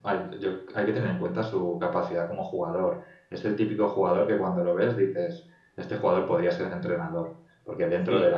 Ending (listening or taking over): listening